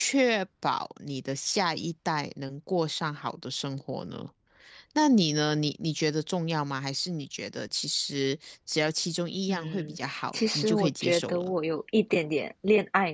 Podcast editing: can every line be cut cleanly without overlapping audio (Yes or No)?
No